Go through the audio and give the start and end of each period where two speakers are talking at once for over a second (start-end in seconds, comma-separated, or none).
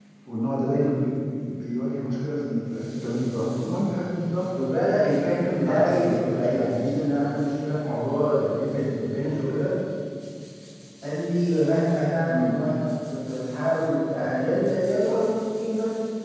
5.6-7.0